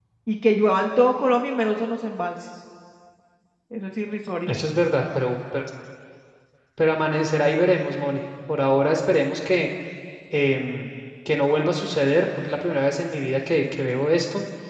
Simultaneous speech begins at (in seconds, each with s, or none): none